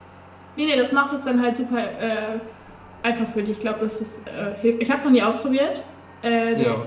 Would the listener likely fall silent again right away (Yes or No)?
Yes